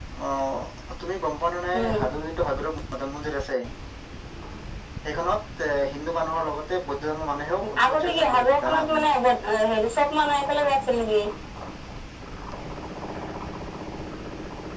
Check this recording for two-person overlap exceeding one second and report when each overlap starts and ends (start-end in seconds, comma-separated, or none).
7.9-9.1